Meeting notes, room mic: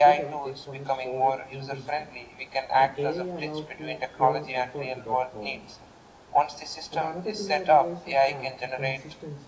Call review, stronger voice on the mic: echo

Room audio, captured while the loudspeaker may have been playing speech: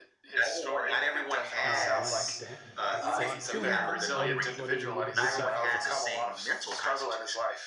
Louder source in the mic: echo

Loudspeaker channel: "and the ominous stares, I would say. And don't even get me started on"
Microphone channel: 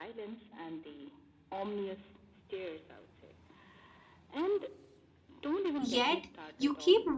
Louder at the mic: user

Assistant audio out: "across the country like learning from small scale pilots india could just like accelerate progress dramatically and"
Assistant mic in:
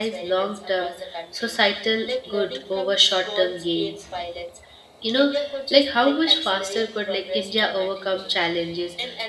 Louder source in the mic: user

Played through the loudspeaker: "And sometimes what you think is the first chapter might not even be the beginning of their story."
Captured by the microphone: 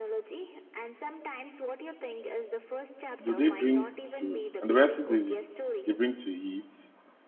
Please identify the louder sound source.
user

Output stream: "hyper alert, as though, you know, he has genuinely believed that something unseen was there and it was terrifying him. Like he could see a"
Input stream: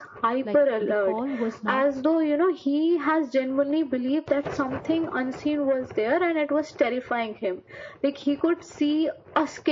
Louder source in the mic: echo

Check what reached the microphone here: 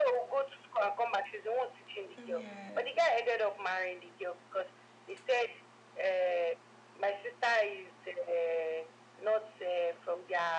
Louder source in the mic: echo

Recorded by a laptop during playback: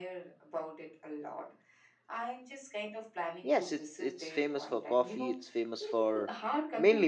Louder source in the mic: user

